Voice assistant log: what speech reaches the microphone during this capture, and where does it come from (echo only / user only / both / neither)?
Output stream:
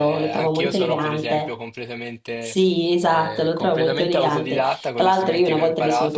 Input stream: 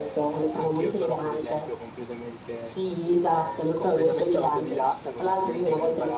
echo only